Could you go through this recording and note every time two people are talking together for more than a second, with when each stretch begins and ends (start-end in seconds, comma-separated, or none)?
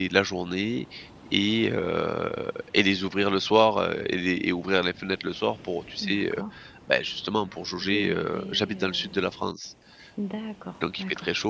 7.8-9.0